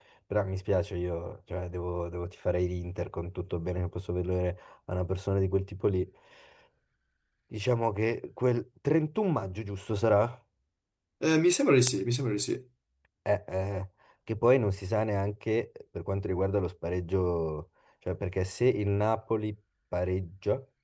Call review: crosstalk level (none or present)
none